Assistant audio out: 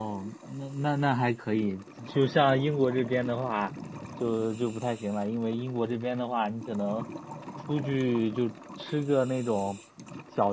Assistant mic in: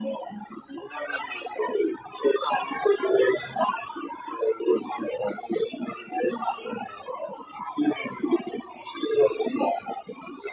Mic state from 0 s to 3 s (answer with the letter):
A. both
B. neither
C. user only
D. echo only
D